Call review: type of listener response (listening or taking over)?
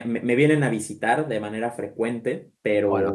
taking over